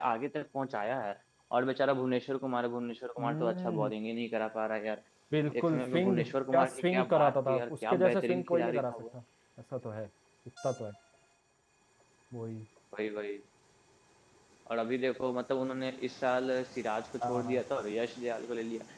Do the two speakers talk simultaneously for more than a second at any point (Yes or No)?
Yes